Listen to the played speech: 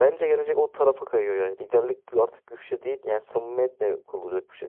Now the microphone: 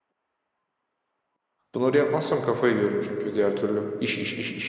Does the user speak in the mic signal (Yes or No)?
Yes